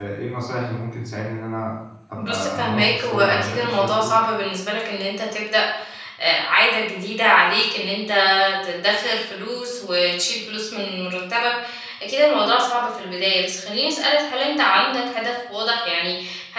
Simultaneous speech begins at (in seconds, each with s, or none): 2.2 s